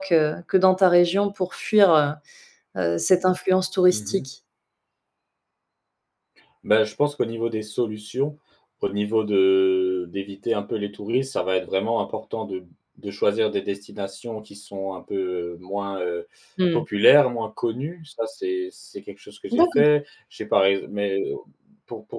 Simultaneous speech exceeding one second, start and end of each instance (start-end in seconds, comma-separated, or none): none